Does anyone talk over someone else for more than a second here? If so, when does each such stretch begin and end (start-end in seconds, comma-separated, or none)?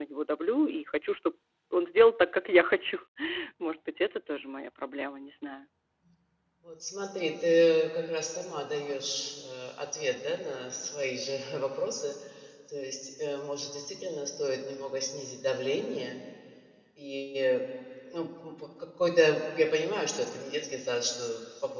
none